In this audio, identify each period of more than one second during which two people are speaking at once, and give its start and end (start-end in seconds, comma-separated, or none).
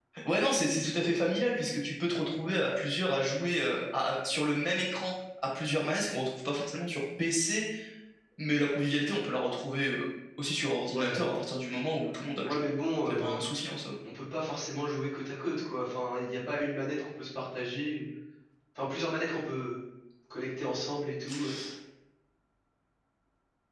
none